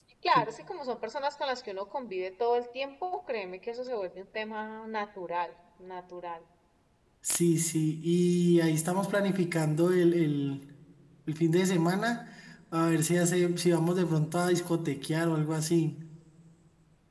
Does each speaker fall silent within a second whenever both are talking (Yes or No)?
Yes